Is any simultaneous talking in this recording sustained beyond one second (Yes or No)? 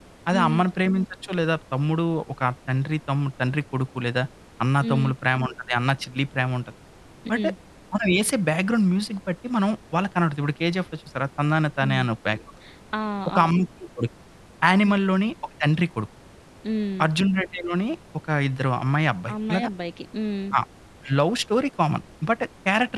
No